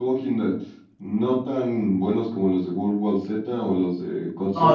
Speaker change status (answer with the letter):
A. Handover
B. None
A